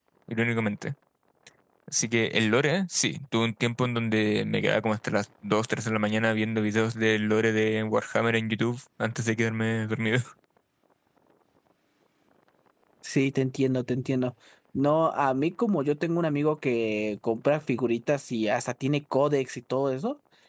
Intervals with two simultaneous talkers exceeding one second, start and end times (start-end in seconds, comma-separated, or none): none